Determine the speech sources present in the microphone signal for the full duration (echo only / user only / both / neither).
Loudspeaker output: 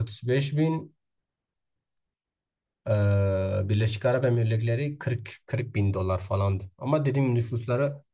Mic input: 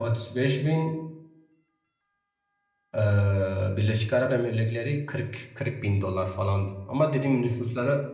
echo only